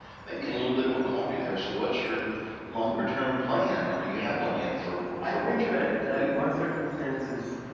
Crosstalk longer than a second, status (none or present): present